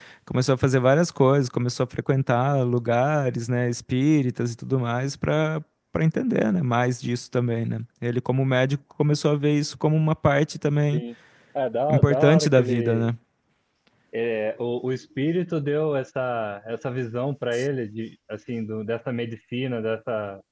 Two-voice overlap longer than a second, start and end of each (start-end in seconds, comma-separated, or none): 11.9-13.1